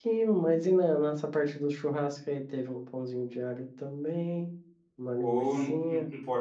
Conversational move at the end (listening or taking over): taking over